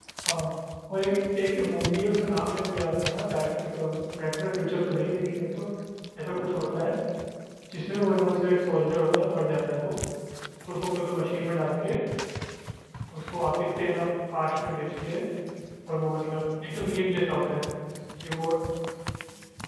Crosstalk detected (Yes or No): No